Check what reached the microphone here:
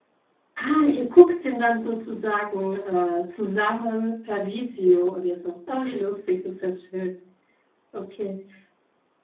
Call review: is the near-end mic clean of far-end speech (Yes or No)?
Yes